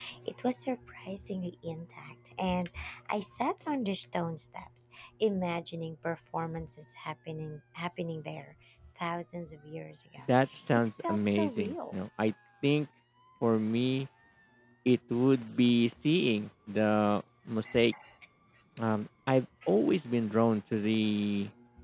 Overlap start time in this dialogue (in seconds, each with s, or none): 10.7 s